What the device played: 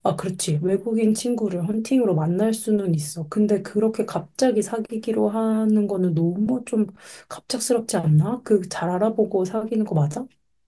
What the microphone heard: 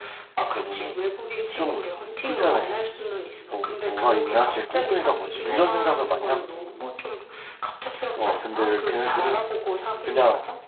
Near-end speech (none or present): present